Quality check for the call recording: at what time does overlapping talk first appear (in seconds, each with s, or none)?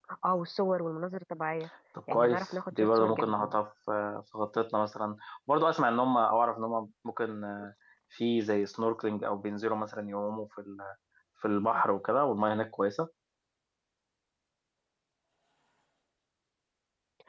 2.1 s